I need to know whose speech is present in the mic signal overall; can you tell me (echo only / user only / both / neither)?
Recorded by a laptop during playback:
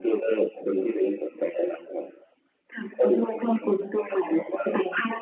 echo only